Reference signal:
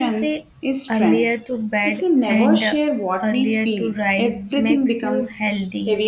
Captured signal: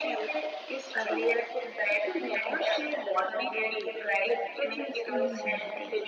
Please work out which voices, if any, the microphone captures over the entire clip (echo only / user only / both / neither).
both